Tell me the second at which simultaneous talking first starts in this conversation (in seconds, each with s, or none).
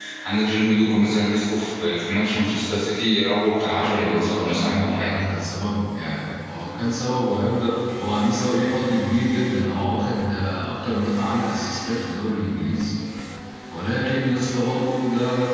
3.6 s